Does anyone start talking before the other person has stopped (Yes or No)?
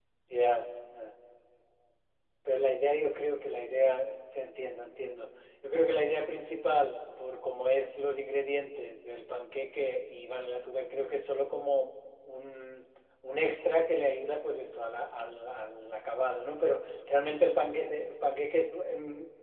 No